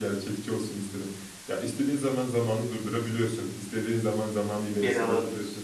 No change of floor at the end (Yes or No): Yes